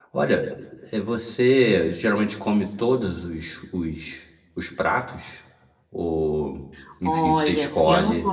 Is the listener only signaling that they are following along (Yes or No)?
No